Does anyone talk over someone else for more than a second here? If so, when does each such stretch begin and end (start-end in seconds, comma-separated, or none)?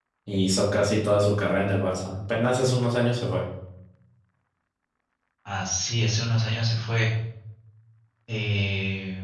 none